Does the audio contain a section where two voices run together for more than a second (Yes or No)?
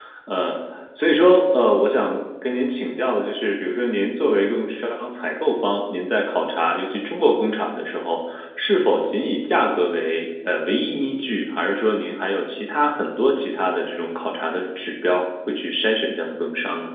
No